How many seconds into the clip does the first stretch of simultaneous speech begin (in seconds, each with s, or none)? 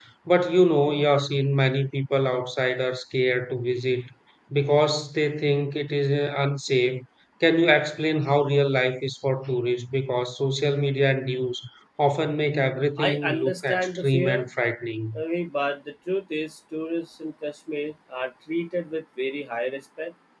13.0 s